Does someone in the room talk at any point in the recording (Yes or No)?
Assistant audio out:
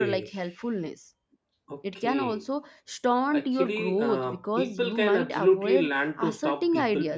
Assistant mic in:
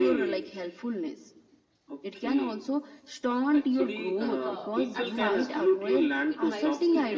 Yes